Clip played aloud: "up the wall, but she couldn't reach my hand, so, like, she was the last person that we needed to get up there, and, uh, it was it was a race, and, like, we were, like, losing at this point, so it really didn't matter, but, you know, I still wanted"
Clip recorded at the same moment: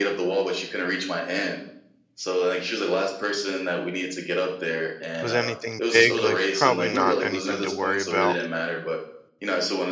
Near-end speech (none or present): present